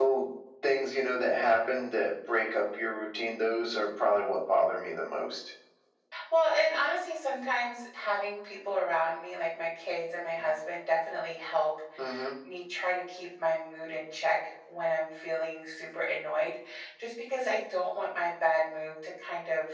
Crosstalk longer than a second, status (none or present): none